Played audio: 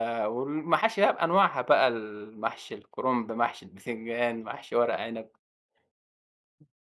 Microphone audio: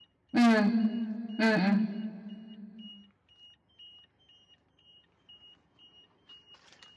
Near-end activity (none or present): present